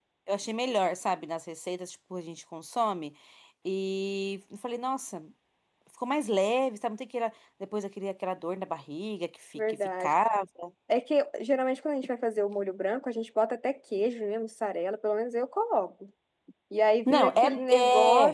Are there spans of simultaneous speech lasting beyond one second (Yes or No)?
Yes